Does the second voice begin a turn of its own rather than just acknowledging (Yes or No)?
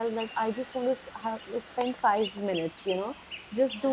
No